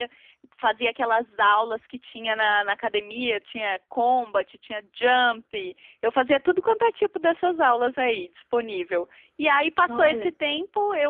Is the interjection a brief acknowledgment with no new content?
Yes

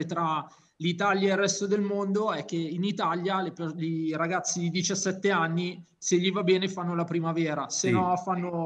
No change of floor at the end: Yes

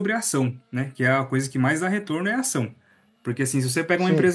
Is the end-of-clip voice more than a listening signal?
No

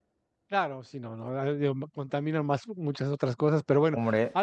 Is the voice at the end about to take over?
No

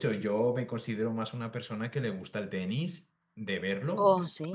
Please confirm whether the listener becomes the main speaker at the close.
No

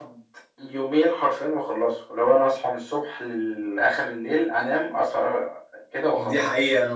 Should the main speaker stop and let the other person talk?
Yes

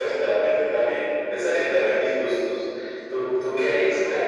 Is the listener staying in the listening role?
No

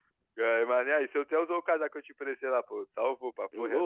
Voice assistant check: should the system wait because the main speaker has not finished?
No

